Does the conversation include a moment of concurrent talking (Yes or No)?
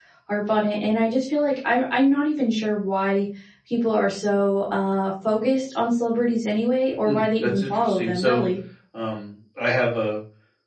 Yes